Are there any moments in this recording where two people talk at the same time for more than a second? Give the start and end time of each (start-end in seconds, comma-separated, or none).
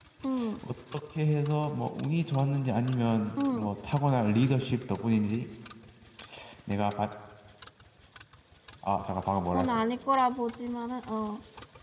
none